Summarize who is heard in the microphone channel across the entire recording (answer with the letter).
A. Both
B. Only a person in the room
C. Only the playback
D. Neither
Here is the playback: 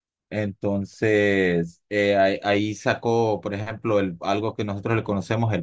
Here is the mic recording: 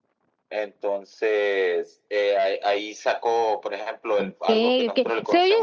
A